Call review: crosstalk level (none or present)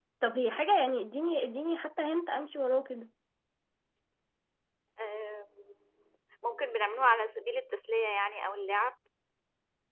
none